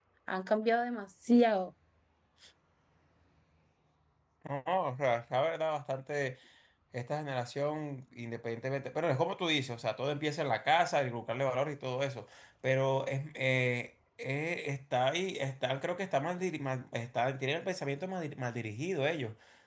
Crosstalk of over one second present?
No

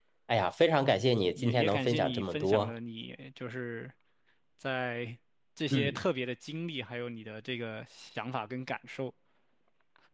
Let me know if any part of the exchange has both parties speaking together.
Yes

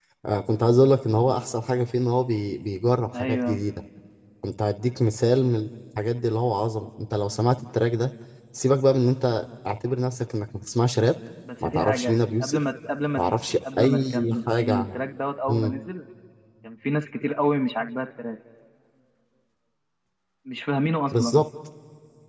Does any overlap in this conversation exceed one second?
Yes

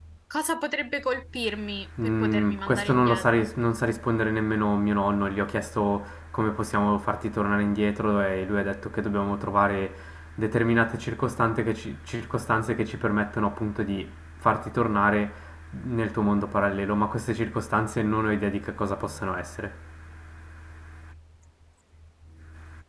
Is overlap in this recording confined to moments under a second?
No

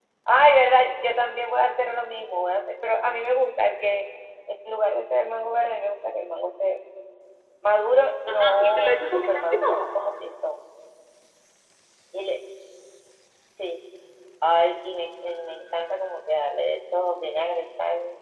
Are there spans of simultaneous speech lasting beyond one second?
Yes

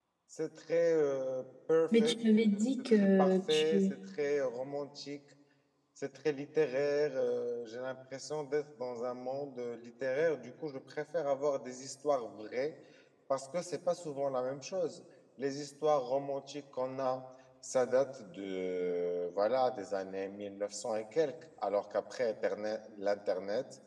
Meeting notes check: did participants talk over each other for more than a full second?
Yes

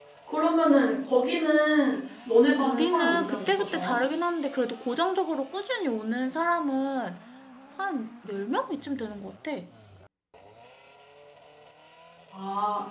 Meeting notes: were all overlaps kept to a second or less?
No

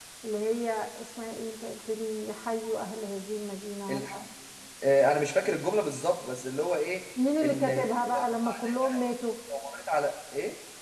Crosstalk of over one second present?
Yes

